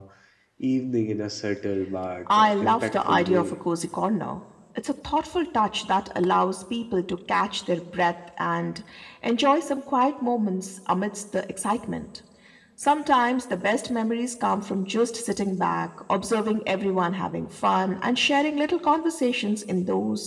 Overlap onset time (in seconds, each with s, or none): 2.3 s